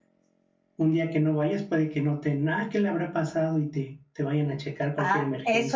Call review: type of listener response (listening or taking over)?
taking over